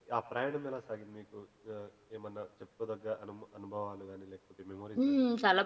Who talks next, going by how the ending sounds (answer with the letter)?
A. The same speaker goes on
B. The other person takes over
B